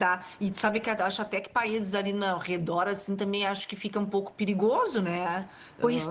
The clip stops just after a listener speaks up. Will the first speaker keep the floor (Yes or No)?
No